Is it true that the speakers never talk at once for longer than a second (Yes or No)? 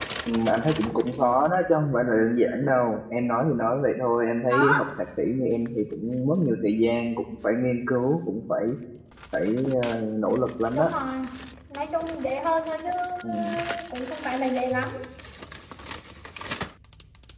Yes